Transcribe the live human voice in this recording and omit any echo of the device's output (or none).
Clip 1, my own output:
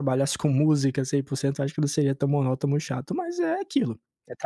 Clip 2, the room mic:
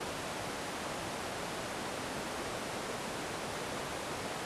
none